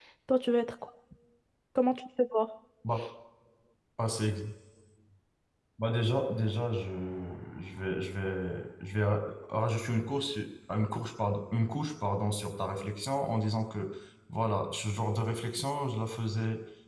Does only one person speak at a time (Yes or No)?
Yes